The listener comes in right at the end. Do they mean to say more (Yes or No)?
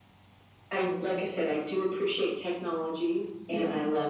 No